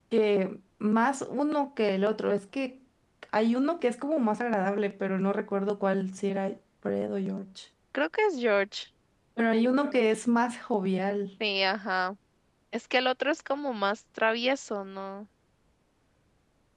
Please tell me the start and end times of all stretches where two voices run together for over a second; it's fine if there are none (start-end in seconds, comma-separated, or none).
none